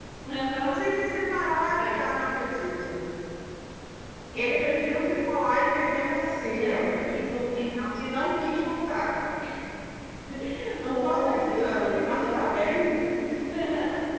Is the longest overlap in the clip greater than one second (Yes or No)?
Yes